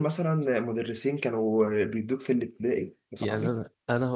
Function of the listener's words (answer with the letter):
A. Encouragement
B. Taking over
B